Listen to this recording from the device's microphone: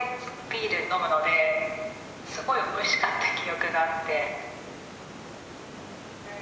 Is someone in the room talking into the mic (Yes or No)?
No